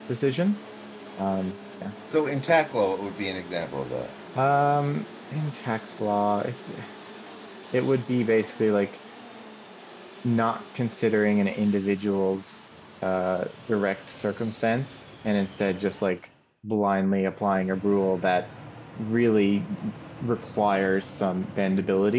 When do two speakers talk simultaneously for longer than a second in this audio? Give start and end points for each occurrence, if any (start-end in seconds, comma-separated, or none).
none